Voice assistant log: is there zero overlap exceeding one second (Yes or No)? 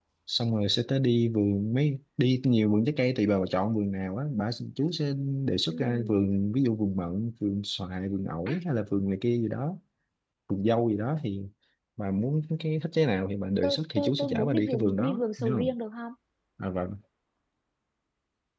No